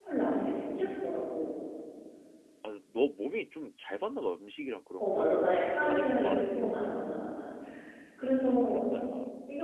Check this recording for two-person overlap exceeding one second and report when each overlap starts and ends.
5.0-6.7

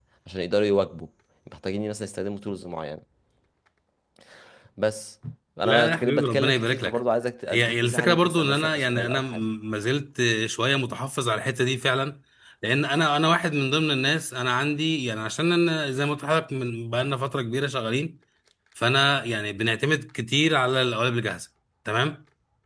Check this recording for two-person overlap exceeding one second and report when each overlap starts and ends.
5.6-7.0, 7.5-9.4

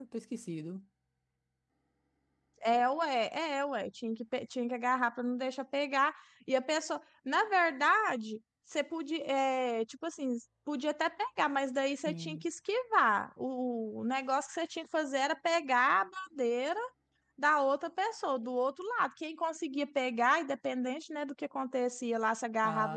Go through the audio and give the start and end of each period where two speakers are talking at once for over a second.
none

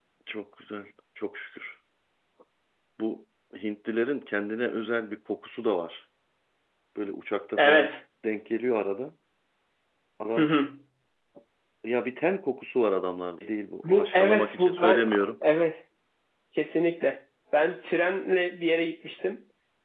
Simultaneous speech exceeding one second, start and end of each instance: 14.0-15.3

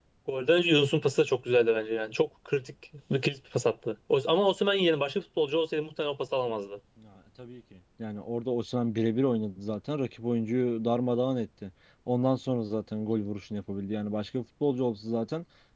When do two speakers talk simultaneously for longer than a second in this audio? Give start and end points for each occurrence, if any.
none

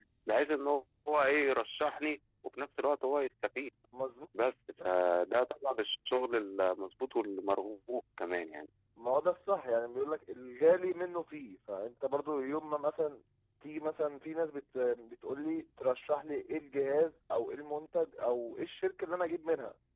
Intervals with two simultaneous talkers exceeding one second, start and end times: none

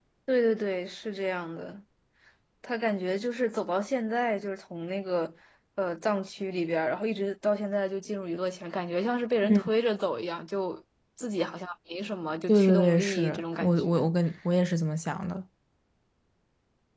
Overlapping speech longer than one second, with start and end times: 12.5-13.9

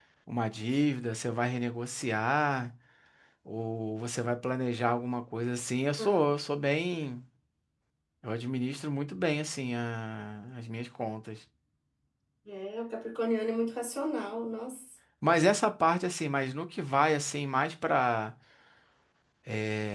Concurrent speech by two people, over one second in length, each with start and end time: none

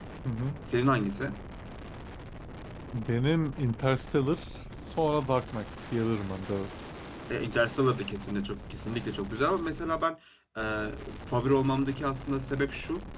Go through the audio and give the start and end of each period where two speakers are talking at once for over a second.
none

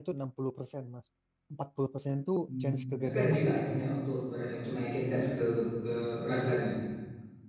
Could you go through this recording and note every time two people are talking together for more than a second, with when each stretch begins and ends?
2.5-3.8

